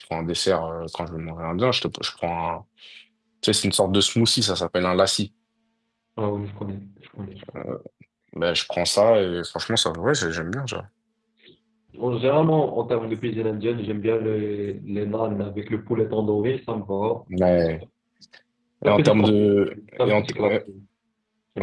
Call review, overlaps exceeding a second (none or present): present